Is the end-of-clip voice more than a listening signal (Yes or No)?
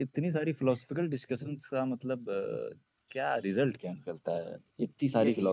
Yes